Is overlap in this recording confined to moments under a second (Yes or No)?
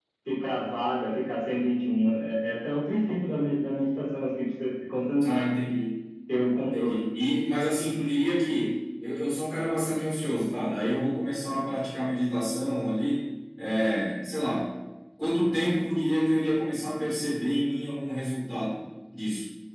Yes